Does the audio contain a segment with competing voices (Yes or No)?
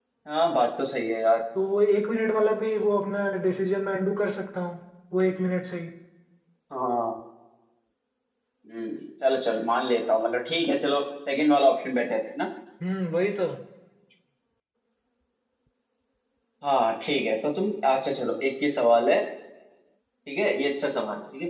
No